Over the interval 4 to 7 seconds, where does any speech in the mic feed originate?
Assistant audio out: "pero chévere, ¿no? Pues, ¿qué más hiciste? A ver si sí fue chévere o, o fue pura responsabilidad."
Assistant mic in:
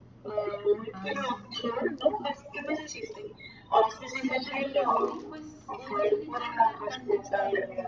both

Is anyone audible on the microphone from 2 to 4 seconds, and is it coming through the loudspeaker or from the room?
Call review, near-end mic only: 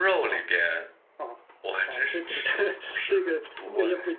both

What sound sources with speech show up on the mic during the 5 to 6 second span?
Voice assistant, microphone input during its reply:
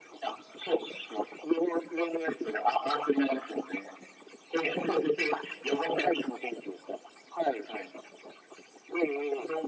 echo only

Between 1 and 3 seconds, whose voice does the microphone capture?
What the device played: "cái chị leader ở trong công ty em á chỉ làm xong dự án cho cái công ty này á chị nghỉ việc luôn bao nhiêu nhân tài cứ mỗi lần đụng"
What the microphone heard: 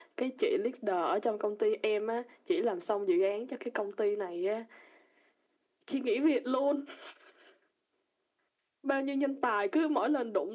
echo only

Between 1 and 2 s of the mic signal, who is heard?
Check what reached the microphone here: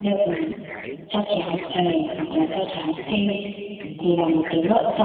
both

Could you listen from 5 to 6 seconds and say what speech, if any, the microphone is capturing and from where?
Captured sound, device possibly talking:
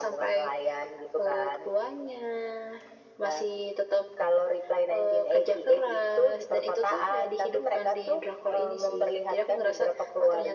echo only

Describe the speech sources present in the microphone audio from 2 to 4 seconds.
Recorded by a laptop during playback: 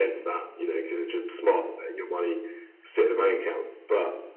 echo only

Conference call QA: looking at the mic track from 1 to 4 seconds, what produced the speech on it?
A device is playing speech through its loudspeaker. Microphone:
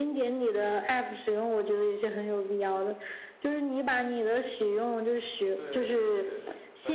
echo only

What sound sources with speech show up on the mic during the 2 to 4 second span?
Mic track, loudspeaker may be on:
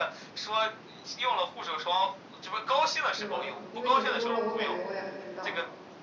both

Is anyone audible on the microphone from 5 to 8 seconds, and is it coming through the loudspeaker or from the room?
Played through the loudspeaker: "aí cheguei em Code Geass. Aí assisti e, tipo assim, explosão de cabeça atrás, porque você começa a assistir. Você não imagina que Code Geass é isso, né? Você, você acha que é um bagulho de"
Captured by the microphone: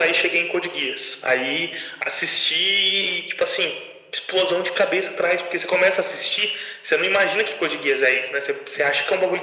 echo only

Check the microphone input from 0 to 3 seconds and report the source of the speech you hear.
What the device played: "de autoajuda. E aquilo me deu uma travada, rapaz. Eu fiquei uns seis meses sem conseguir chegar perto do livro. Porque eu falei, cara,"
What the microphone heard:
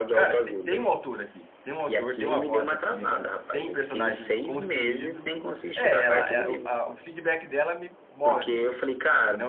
both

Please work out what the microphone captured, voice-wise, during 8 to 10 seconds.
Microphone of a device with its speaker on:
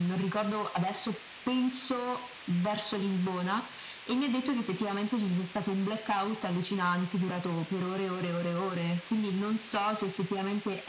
echo only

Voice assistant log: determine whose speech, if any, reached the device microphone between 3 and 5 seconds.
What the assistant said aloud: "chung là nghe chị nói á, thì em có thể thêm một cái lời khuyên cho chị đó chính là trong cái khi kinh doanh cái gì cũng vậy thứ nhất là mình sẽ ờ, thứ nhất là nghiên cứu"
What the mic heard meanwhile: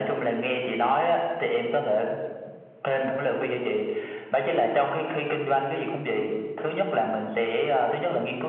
echo only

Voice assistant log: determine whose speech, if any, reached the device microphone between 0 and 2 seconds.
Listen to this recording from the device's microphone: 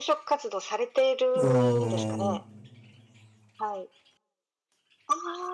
both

